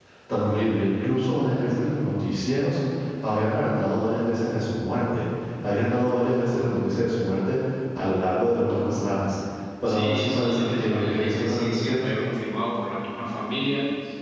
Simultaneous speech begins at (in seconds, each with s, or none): 9.9 s